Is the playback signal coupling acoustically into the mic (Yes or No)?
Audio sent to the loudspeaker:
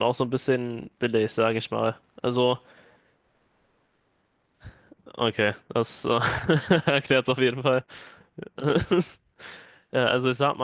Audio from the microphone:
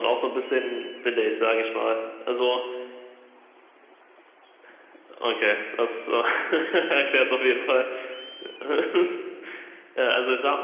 Yes